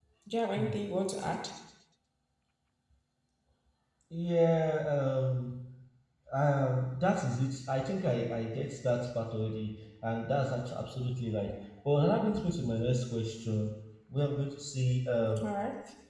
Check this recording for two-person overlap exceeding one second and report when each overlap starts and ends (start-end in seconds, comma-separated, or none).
none